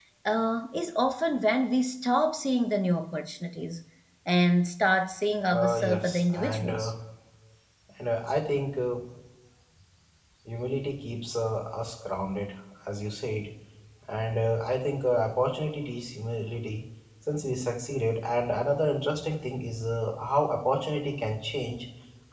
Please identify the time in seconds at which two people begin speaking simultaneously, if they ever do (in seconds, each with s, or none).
5.5 s